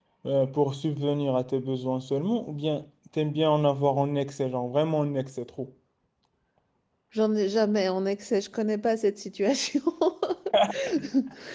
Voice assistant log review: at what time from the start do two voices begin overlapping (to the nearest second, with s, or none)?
none